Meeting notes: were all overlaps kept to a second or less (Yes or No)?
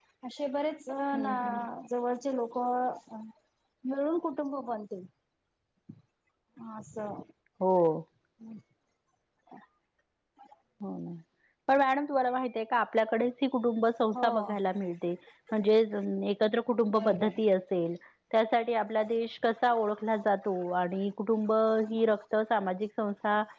Yes